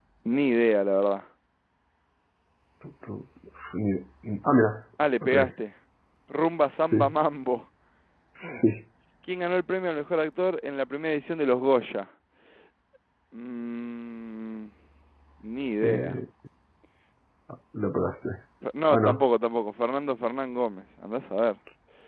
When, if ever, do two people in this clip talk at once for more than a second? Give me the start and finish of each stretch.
none

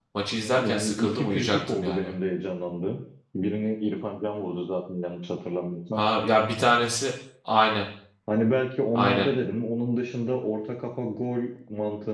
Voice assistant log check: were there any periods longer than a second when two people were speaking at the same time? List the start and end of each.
0.6-2.1

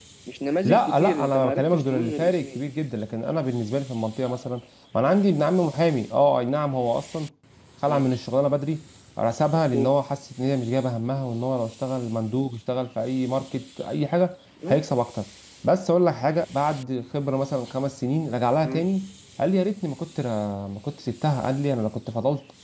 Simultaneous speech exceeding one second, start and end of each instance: 0.7-2.6

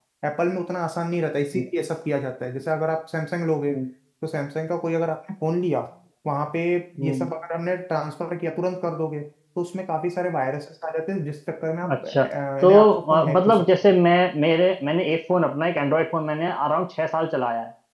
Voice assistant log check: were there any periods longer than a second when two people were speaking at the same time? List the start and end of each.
12.6-13.9

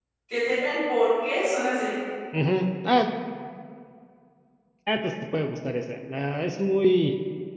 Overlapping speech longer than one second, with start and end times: none

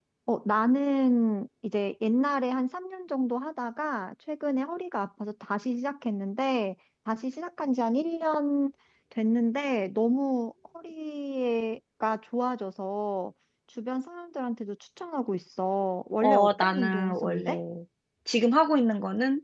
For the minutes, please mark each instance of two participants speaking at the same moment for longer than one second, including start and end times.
16.2-17.5

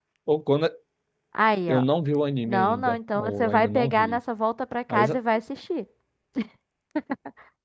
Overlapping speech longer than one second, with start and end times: 2.5-4.2

